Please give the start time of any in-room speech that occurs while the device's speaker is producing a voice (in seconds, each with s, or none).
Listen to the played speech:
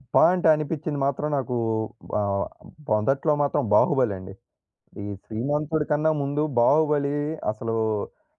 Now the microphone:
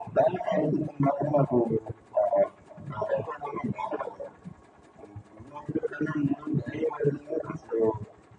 none